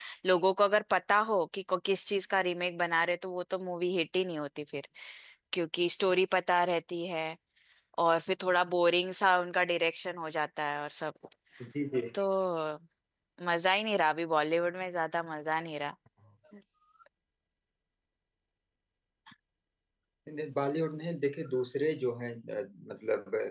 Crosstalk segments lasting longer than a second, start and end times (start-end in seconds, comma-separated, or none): none